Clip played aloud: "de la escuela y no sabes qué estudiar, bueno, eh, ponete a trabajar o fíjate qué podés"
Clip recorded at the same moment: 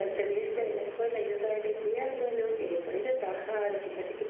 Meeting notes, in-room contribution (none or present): none